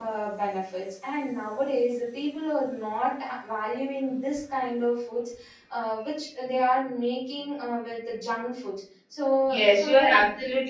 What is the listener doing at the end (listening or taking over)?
taking over